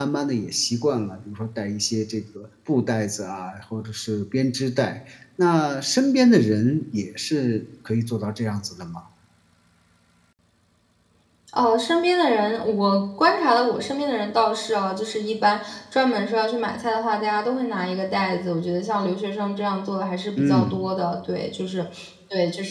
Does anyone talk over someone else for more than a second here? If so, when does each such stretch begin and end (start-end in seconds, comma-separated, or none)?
none